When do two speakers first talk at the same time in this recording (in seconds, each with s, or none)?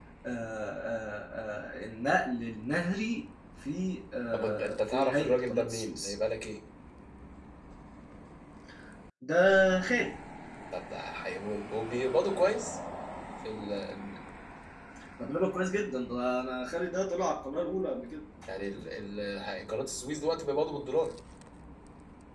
4.3 s